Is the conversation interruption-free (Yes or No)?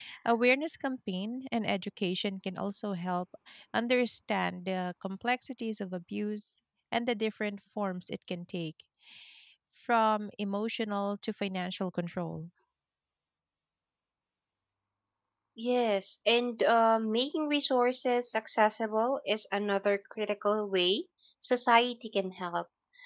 Yes